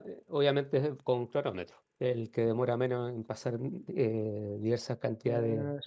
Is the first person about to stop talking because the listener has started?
Yes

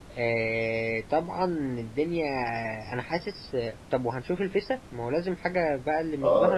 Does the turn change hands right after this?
Yes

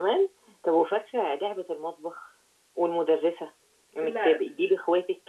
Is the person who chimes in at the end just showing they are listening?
Yes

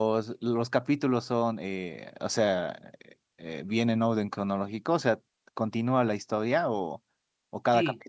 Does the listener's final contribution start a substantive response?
Yes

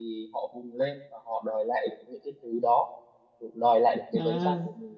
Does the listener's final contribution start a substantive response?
No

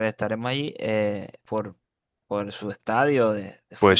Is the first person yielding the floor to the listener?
Yes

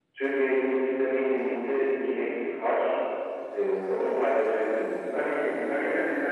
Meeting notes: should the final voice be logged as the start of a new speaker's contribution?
Yes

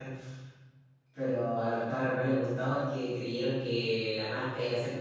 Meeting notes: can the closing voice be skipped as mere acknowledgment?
Yes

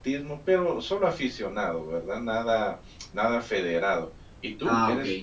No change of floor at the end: Yes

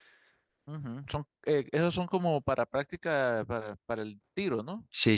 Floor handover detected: Yes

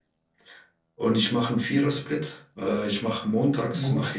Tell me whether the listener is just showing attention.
Yes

